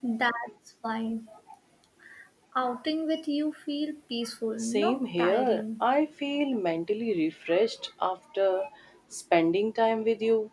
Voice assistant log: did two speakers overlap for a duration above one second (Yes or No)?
Yes